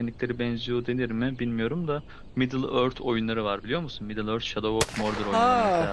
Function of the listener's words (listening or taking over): taking over